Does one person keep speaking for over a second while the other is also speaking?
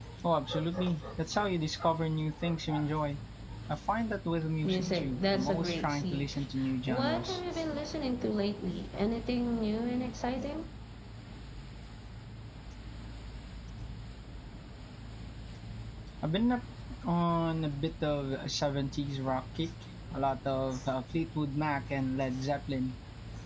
Yes, from 4.6 s

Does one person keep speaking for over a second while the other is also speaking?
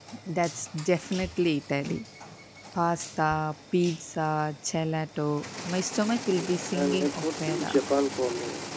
Yes, from 6.3 s

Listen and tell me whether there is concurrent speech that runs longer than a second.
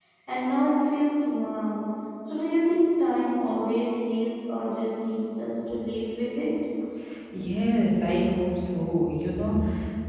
No

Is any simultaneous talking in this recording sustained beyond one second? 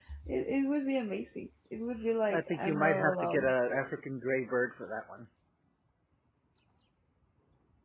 Yes, from 2.3 s

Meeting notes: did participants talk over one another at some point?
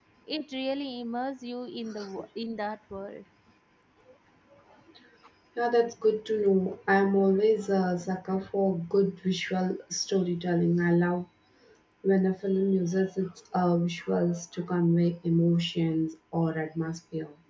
No

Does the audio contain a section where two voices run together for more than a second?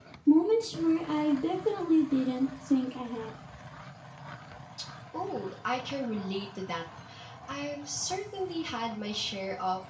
No

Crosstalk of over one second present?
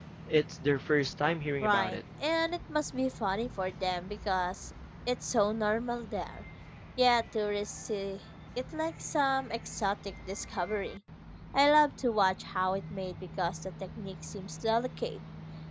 No

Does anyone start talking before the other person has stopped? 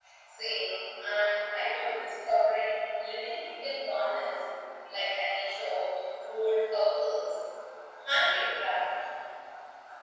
No

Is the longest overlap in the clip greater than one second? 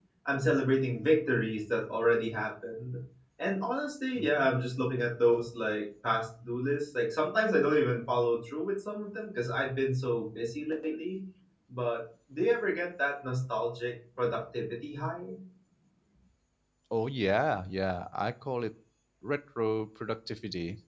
No

